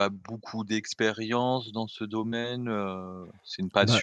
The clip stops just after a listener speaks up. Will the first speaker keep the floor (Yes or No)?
Yes